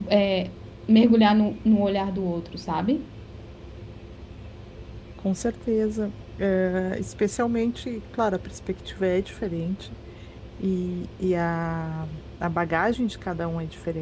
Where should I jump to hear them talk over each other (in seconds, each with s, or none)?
none